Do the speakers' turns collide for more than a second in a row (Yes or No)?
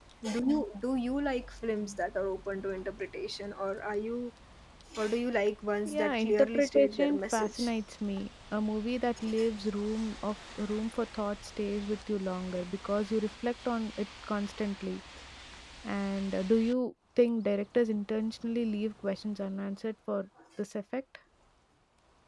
Yes